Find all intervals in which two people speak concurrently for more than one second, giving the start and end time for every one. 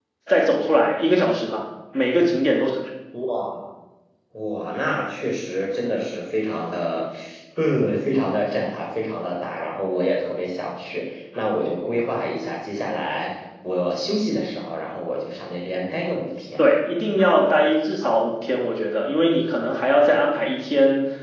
none

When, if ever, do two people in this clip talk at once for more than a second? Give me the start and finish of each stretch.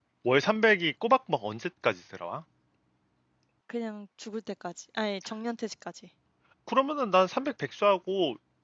none

